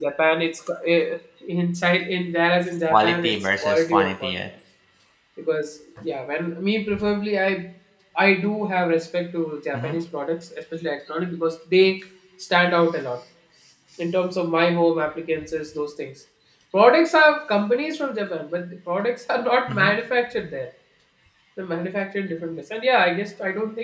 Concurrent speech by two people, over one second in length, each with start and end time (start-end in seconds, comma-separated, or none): 2.9-4.3